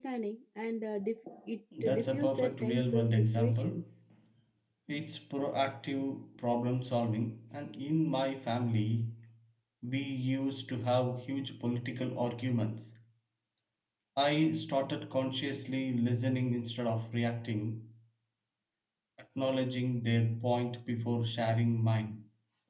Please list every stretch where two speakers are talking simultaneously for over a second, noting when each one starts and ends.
1.8-3.8

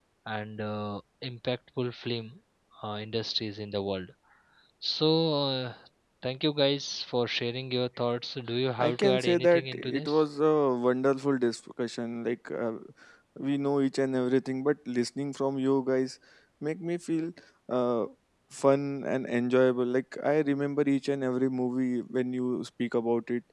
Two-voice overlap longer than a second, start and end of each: 8.8-10.2

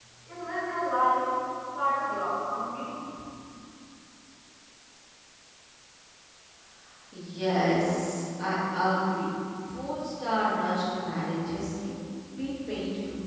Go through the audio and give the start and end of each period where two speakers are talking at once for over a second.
none

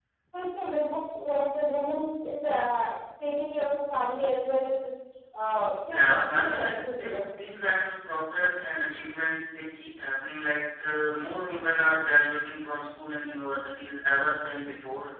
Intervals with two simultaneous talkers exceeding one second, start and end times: 5.9-7.2

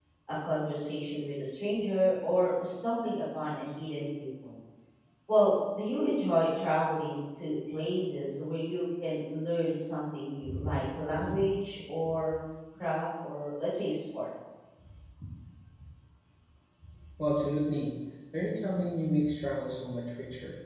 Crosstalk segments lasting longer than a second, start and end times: none

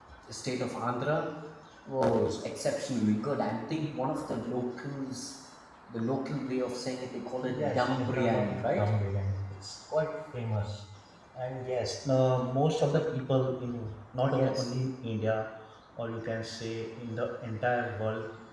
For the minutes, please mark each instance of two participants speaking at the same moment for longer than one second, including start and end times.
7.5-8.9

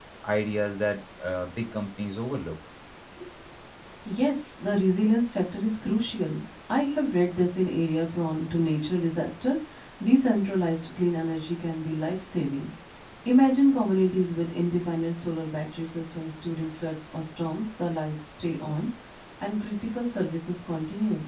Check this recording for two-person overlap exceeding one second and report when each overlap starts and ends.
none

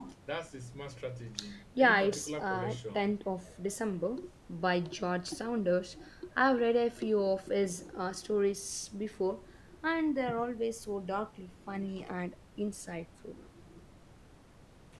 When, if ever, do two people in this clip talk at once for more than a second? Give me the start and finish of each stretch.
1.8-3.2

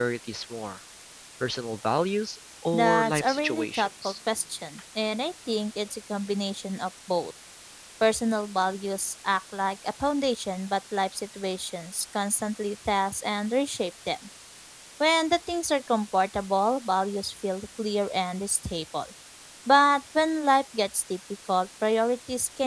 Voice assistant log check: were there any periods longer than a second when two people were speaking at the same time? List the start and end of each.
2.7-4.1

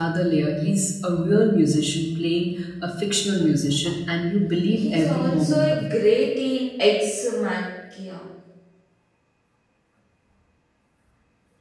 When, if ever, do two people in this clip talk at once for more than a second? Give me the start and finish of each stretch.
4.5-5.8

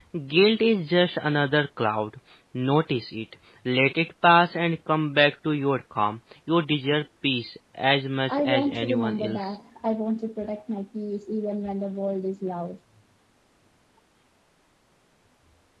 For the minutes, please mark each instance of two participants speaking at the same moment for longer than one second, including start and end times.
8.3-9.5

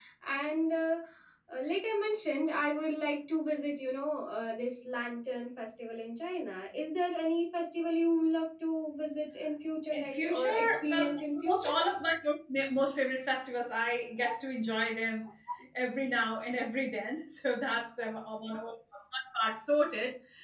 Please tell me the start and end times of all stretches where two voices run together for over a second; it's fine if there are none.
9.9-11.8

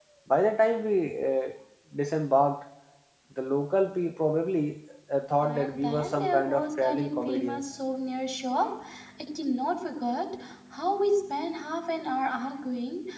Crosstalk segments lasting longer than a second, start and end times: 5.4-7.6

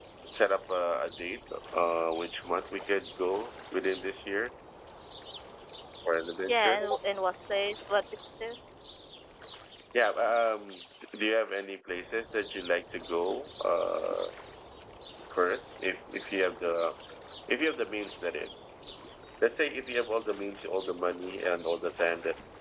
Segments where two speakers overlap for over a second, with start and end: none

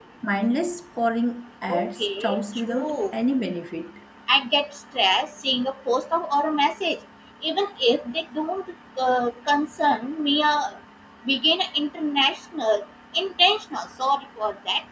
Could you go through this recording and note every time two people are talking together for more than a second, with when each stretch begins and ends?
1.7-3.1

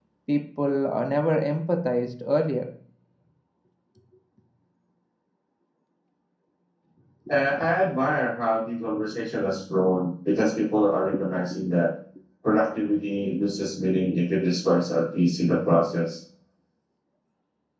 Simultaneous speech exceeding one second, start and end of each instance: none

